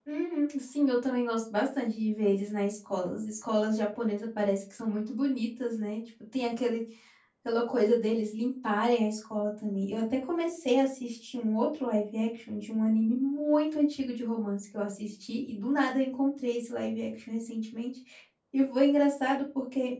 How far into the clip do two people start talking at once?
none

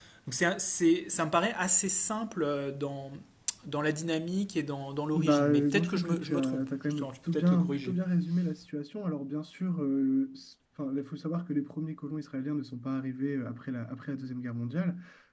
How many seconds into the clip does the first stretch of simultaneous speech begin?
5.1 s

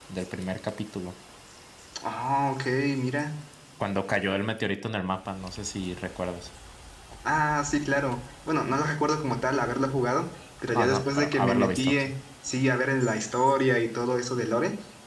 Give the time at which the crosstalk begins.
10.8 s

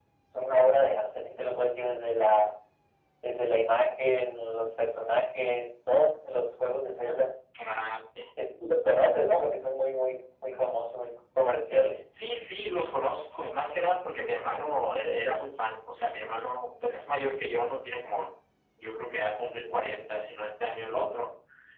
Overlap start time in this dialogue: none

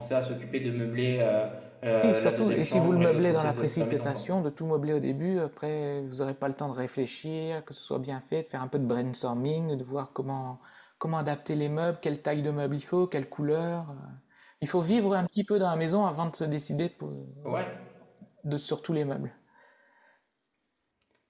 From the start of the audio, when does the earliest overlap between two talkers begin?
2.0 s

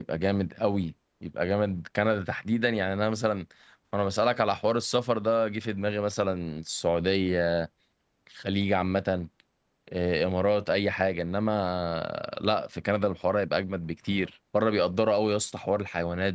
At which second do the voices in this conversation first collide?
none

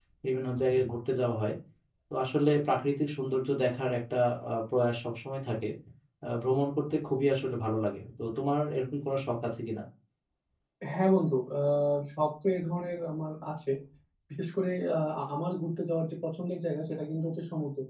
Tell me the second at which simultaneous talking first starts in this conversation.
none

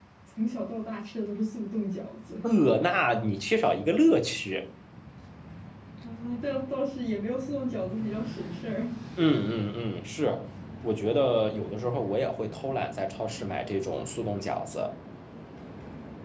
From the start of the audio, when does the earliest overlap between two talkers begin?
none

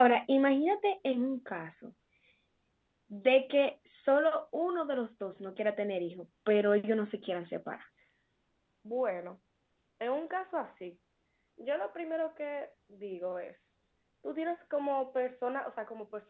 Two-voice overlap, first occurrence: none

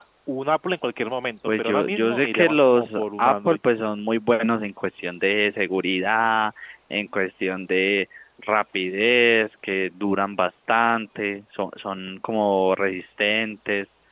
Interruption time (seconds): 1.5 s

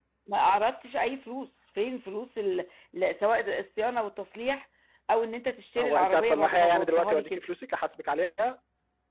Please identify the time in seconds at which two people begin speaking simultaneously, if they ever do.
5.8 s

